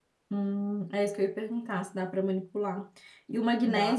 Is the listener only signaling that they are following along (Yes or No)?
Yes